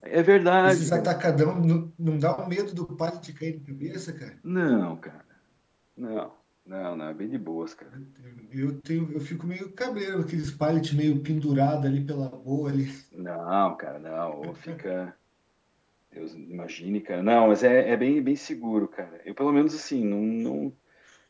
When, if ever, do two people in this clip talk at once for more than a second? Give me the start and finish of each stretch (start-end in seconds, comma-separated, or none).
none